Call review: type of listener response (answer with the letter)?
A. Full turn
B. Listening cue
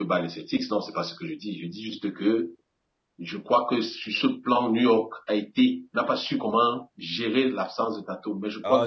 A